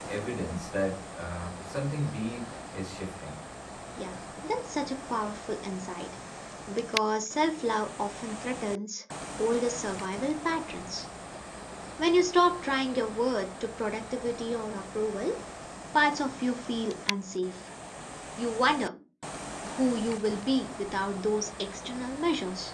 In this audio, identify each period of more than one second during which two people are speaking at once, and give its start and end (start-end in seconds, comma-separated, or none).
none